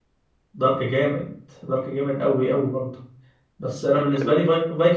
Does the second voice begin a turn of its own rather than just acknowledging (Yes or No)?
No